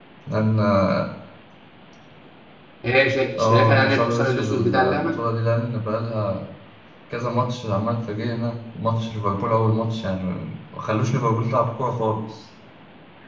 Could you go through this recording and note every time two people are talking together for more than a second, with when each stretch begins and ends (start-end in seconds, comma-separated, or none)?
3.4-5.2